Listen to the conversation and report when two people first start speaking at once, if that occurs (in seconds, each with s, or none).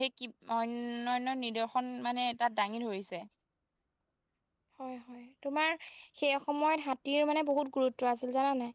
none